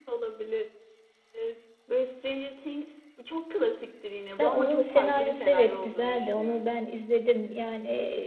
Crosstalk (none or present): present